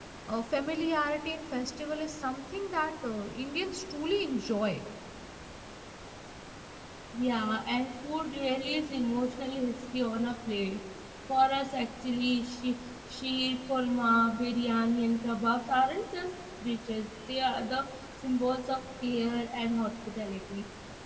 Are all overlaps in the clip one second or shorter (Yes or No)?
Yes